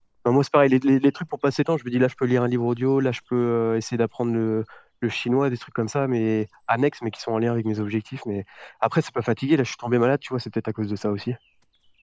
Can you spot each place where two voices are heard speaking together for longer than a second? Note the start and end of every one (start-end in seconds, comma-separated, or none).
none